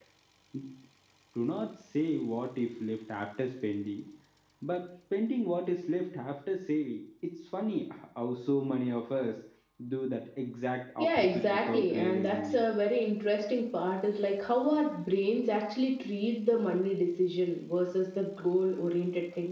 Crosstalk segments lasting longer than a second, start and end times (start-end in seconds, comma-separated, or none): 11.0-12.6